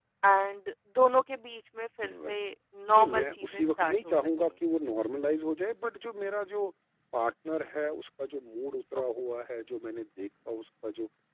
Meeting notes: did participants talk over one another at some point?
Yes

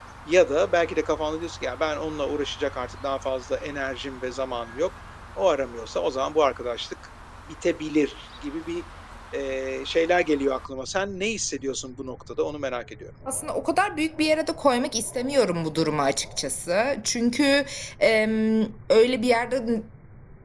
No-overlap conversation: Yes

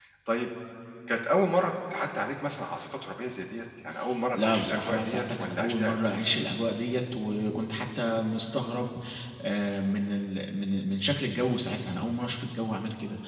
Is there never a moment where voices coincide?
No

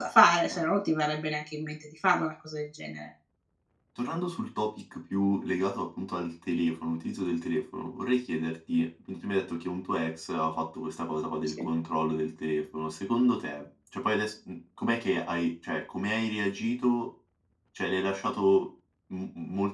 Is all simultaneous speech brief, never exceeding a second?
Yes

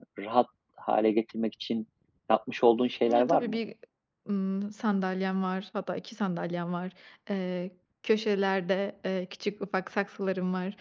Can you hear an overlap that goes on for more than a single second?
No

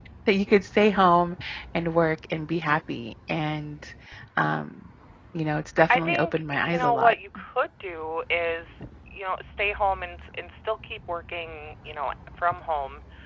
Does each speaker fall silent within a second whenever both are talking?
No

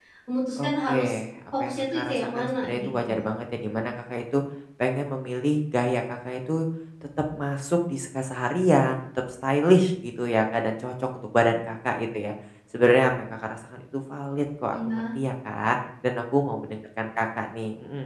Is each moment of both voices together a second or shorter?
No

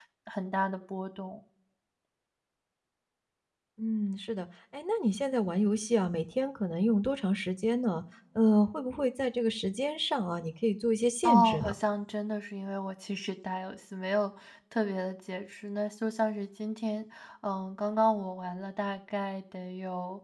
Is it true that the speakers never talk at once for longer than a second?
Yes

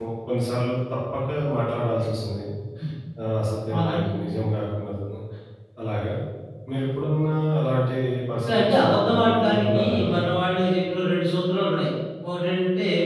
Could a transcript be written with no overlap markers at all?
No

